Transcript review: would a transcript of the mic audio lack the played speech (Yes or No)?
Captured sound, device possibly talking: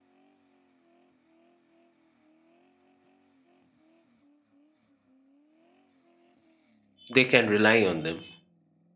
Yes